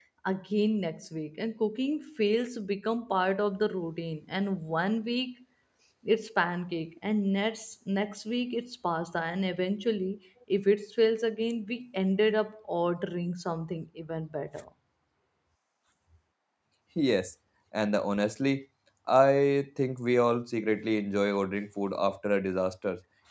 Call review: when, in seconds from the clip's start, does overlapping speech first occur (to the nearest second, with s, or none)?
none